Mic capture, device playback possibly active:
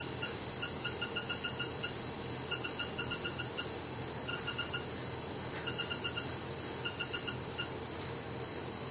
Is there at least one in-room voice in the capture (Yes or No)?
No